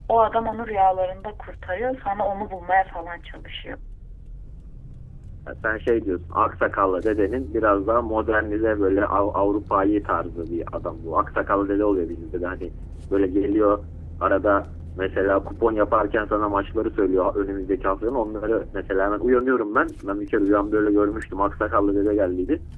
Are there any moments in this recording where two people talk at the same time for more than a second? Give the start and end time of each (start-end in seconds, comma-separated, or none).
none